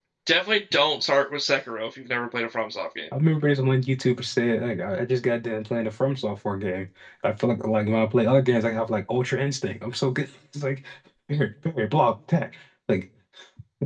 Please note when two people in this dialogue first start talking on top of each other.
none

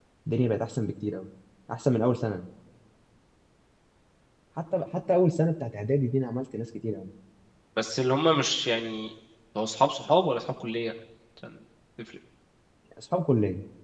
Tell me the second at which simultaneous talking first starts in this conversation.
none

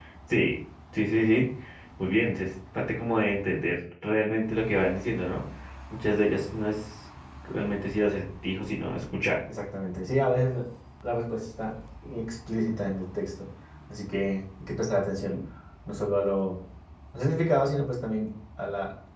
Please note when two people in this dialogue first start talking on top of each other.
none

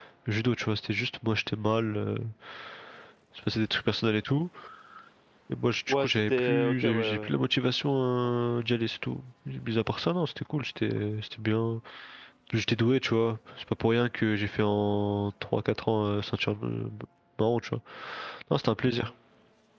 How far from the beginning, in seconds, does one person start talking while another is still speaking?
6 s

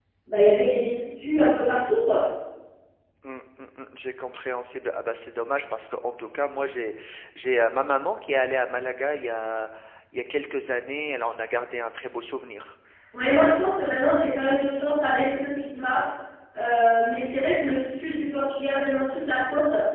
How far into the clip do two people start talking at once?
none

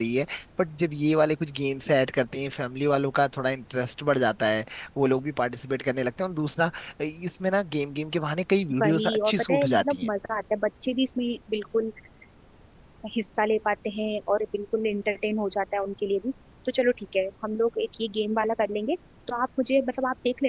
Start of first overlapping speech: 9 s

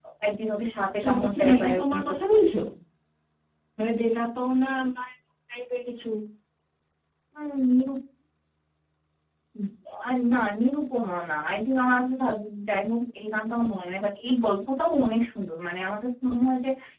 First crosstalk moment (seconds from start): 1 s

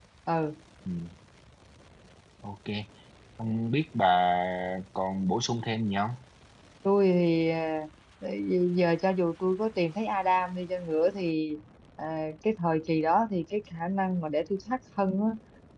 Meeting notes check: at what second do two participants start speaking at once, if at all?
none

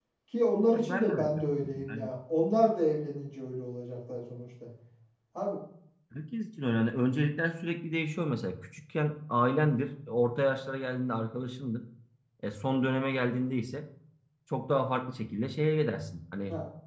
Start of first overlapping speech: 1 s

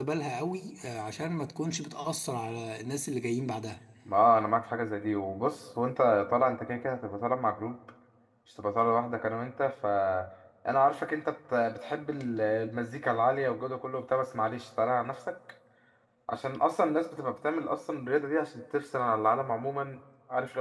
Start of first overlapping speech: none

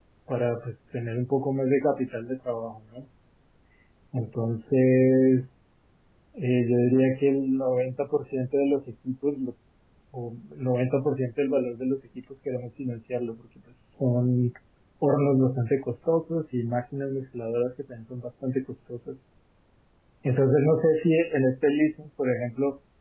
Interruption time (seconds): none

